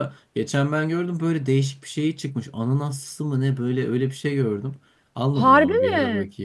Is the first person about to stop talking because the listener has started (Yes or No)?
No